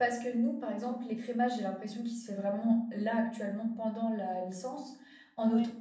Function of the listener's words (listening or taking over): listening